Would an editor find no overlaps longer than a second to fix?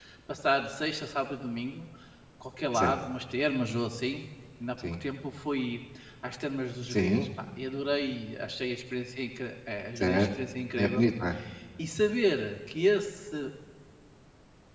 Yes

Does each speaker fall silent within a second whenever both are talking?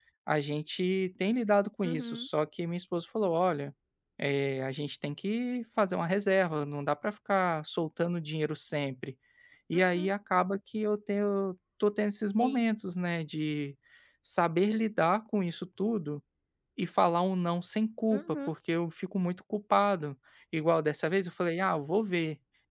Yes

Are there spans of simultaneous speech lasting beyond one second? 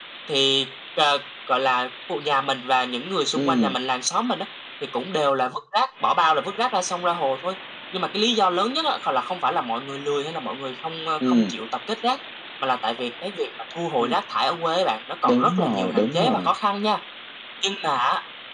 Yes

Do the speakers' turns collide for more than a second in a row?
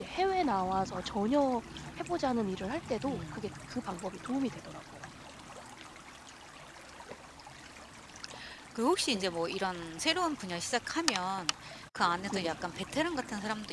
No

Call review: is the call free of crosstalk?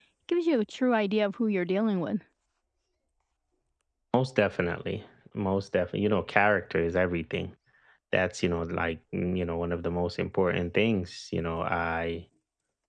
Yes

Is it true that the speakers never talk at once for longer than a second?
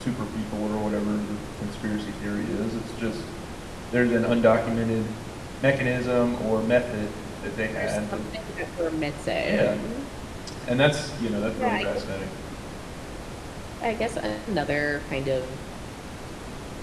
Yes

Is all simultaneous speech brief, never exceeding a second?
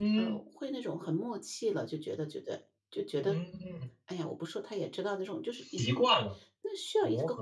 Yes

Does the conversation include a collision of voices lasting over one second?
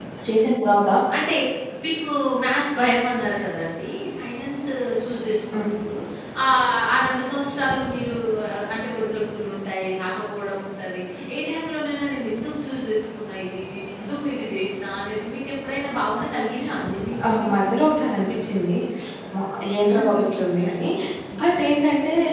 No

